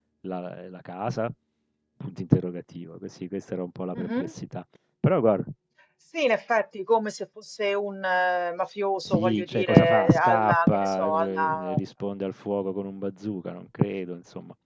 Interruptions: present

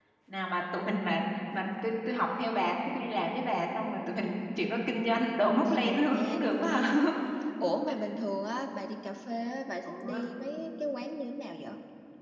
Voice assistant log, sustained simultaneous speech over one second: present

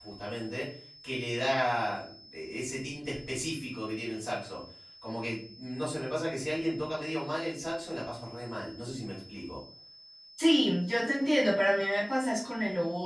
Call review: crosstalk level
none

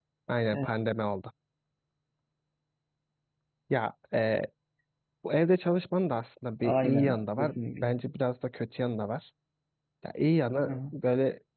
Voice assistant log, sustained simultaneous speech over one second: present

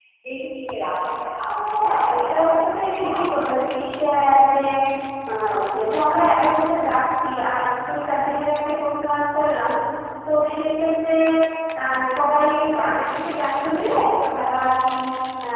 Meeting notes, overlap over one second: present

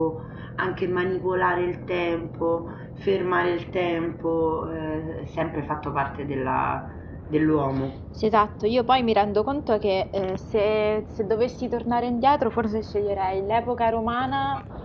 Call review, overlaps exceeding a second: none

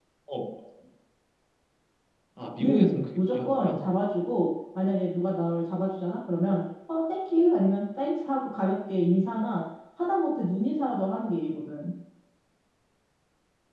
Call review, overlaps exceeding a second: present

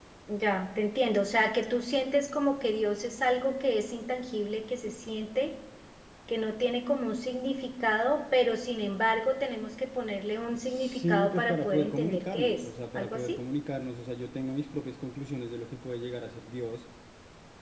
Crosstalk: present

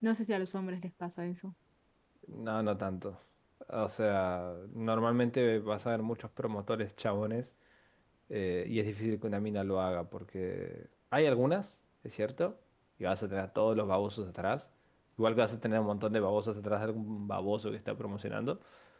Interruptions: none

